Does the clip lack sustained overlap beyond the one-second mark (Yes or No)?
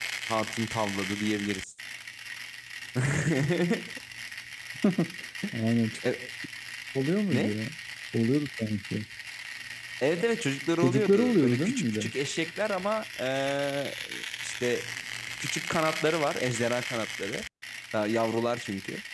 No